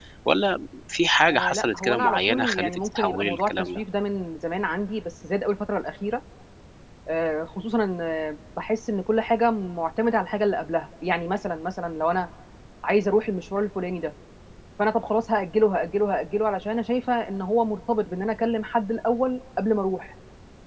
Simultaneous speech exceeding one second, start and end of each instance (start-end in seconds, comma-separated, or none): 1.3-3.8